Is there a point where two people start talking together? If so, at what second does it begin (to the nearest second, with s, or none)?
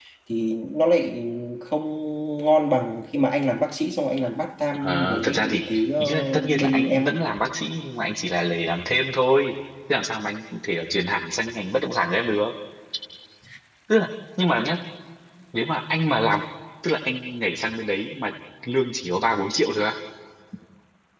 5 s